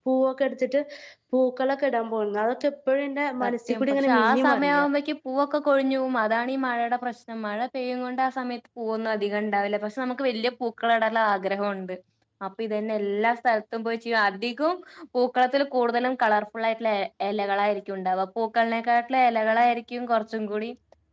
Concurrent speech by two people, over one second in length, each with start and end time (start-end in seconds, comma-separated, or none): 3.4-4.8